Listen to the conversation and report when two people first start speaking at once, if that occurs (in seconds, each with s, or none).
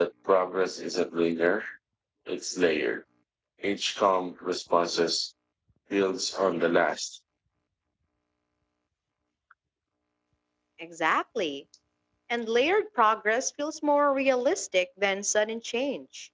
none